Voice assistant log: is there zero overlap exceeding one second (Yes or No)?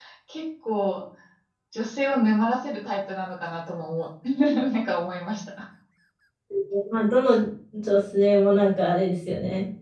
Yes